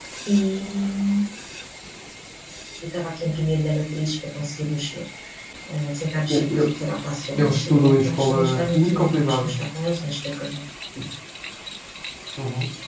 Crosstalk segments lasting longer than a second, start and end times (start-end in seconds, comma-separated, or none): 7.4-9.6